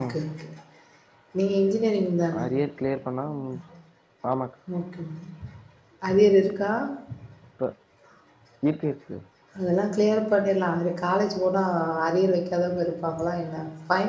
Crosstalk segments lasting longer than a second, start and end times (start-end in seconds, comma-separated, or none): none